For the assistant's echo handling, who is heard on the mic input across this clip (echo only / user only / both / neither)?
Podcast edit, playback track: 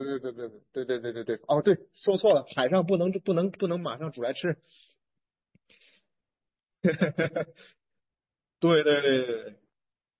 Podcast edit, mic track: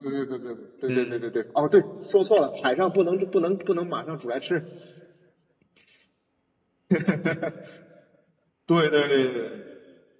both